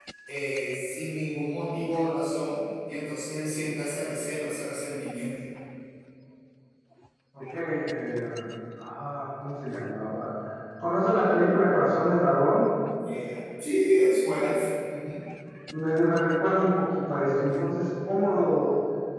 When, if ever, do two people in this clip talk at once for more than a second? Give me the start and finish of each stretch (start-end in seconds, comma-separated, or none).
none